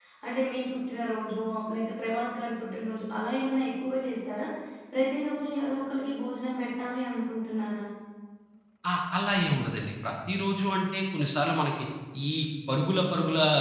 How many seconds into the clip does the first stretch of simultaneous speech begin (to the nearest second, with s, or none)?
none